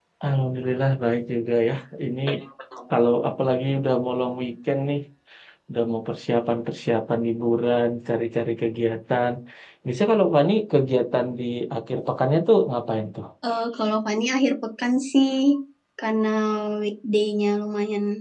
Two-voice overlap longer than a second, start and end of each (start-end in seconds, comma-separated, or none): none